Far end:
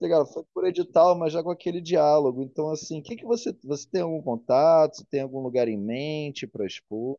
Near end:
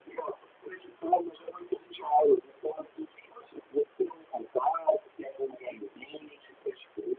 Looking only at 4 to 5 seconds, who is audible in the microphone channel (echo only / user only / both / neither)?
echo only